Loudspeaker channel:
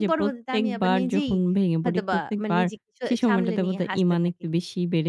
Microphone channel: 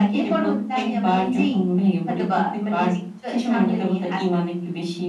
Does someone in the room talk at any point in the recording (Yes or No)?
No